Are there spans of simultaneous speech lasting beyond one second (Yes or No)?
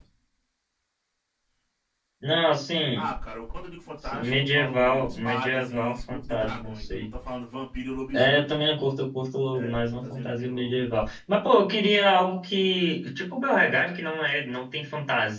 Yes